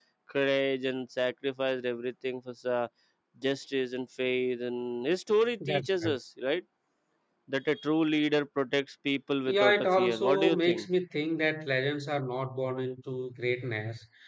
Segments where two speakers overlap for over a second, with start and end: 9.5-10.9

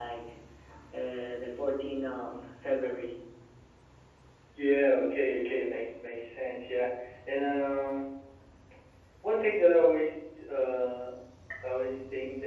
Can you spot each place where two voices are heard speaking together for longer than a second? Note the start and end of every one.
none

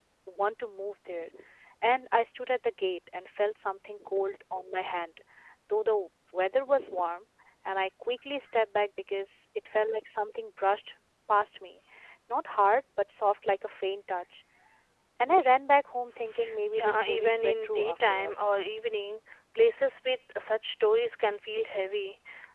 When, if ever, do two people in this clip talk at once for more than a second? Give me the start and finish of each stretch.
16.7-18.4

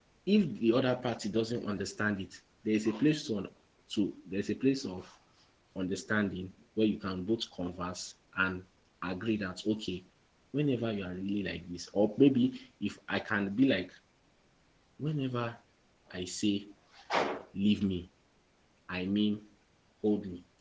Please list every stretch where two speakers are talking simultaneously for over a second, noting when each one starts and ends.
none

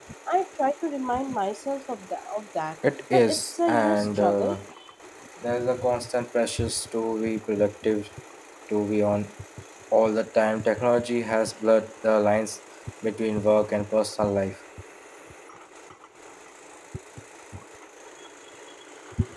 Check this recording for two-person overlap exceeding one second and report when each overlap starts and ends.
3.1-4.6

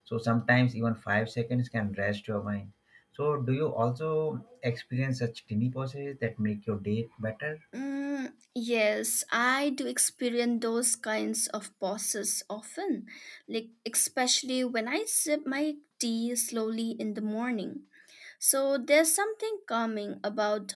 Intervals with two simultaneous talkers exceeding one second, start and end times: none

